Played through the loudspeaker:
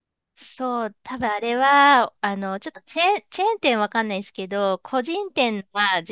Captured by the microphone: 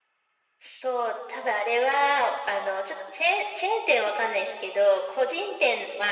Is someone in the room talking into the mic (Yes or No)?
No